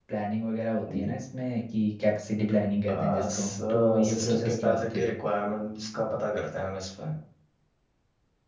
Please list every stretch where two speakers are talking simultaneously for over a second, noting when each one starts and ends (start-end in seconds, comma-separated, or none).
2.9-5.2